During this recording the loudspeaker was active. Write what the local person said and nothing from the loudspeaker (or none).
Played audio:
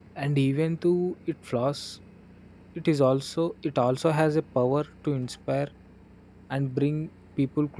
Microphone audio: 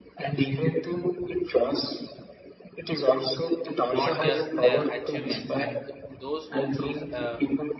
not just their achievements and th- those who choose uh,